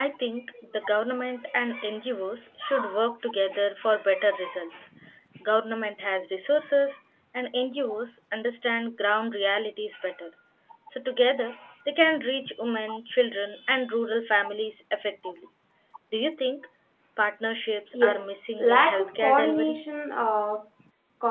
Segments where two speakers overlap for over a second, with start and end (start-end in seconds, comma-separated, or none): 17.9-19.8